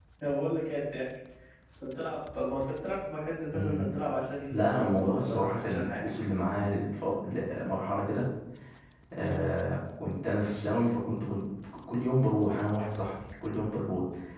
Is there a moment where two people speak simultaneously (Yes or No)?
Yes